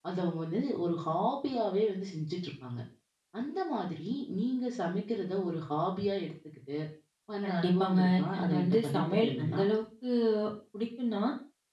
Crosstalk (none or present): present